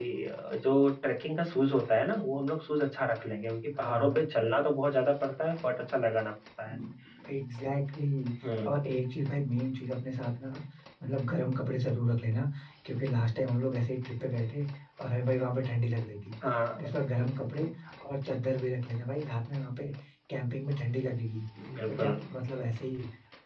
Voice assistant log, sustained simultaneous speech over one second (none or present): none